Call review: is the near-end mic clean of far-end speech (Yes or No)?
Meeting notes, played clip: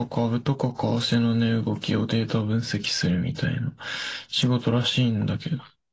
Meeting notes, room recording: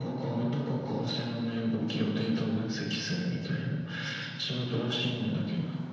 No